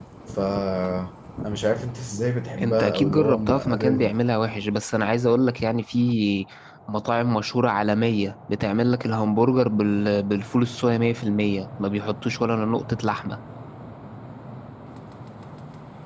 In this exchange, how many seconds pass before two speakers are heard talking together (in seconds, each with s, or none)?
2.6 s